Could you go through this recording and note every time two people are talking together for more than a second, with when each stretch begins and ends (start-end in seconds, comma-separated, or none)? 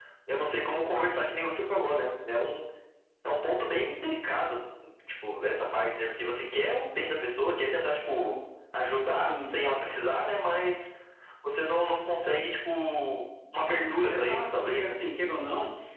13.6-14.9